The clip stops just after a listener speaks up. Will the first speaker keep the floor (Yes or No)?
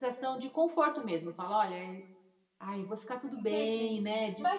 No